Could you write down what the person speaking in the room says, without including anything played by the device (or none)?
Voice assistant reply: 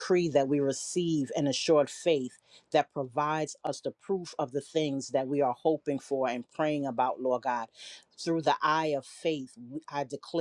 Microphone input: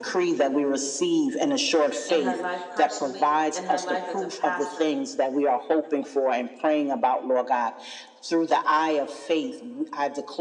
in her life personally, in her life as a pastor